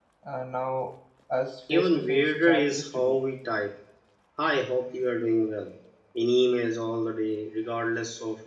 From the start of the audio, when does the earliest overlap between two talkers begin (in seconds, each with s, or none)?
1.7 s